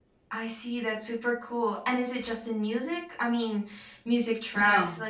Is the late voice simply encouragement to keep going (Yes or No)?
Yes